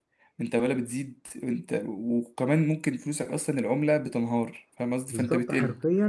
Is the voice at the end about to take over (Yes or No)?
Yes